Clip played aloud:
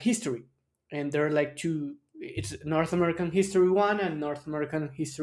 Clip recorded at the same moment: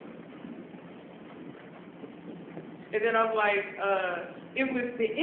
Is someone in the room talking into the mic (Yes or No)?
Yes